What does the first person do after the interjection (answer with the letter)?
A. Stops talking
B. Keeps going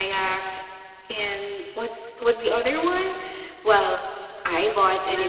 B